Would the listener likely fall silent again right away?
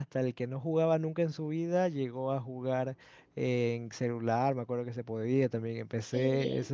Yes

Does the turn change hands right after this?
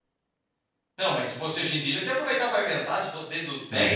Yes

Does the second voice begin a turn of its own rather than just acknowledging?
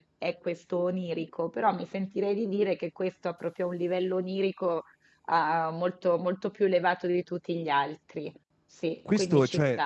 Yes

